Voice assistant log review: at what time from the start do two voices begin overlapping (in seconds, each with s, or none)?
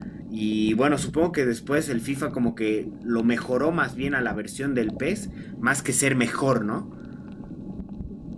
none